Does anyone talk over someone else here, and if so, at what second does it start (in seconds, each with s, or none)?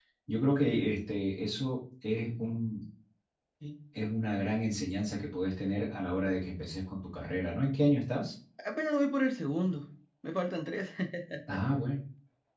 none